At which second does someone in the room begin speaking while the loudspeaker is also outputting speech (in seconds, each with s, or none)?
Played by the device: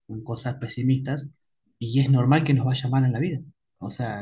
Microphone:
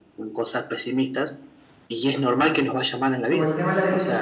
3.3 s